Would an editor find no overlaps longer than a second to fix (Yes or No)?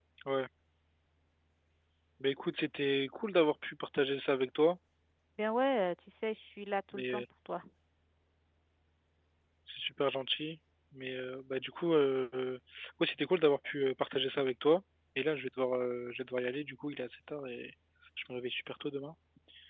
Yes